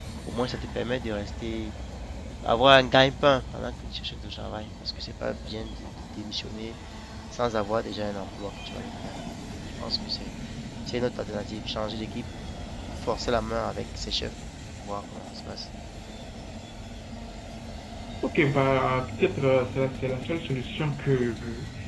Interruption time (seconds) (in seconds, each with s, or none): none